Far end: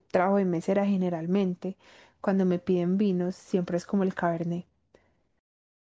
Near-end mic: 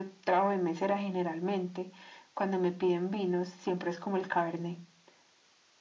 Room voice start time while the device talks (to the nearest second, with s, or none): none